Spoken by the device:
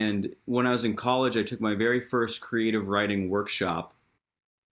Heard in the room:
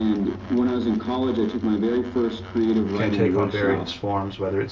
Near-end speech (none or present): present